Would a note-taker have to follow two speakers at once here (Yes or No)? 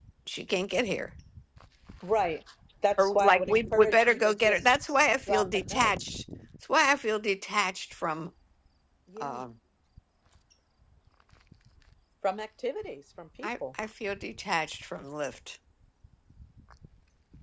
Yes